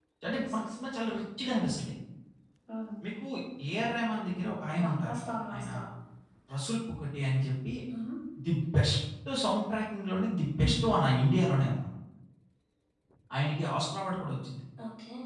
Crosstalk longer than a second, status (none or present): none